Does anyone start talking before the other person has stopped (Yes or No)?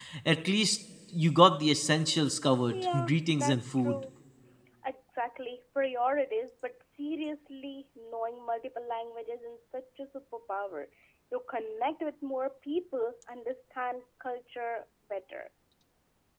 Yes